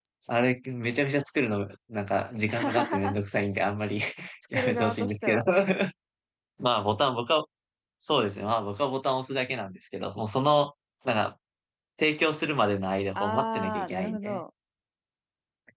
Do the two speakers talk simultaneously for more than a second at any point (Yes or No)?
Yes